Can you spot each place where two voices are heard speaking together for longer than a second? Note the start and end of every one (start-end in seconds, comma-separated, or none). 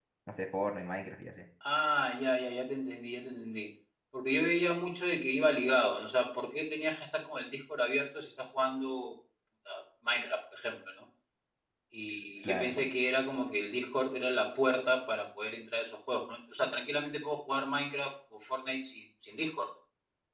none